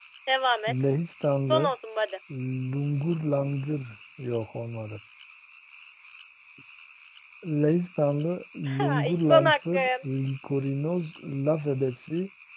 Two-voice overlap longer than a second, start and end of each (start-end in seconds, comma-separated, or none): 8.7-9.9